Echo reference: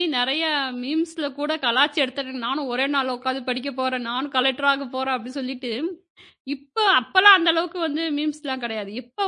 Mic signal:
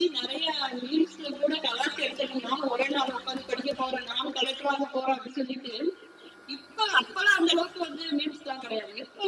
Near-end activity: none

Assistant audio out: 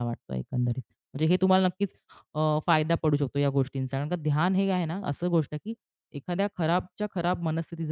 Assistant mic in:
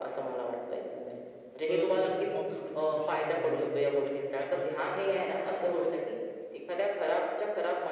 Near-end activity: present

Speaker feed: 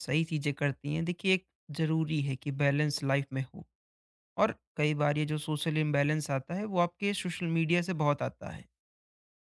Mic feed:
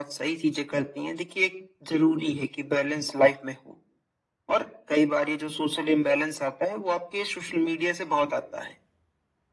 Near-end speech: none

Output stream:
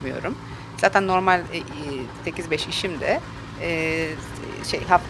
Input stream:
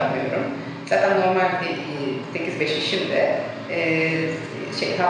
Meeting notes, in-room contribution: none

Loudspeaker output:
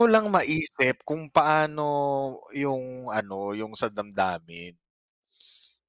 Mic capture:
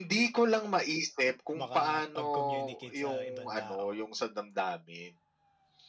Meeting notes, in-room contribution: present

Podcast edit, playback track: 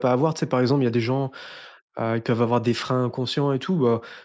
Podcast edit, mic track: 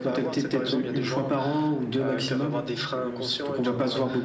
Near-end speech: present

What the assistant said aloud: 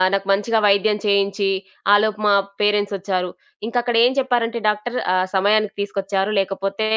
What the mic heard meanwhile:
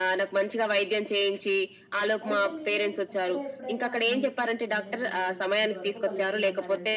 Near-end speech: present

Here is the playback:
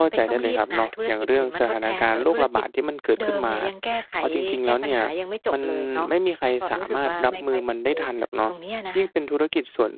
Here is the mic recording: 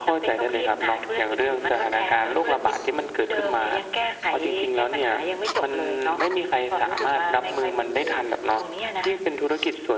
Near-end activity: none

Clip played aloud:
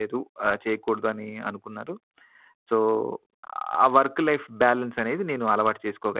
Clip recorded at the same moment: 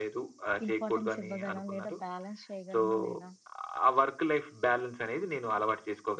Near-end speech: present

